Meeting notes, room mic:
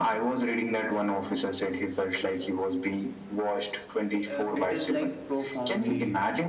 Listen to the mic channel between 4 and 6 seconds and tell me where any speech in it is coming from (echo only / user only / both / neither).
both